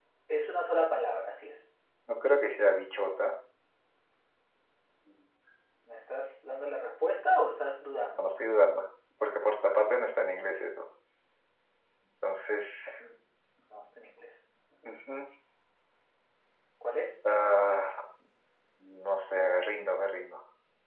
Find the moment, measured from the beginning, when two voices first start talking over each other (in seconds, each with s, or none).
none